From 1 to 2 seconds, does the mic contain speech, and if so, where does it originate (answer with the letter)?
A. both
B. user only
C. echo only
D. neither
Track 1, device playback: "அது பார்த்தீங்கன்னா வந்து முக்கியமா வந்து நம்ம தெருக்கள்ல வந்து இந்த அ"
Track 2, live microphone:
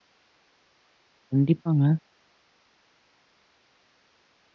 B